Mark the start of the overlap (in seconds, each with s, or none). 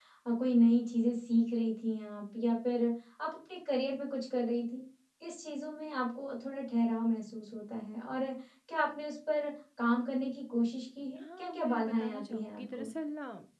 11.2 s